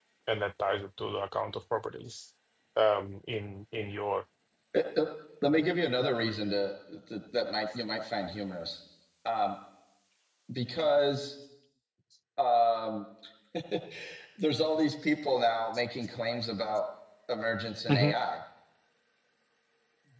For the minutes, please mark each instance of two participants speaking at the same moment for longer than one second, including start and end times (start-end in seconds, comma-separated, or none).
none